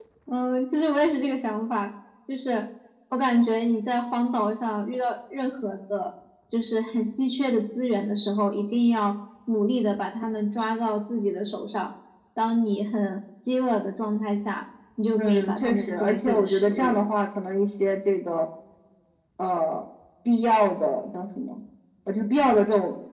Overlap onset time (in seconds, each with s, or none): 15.2 s